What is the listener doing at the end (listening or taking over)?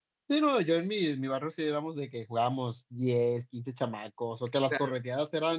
listening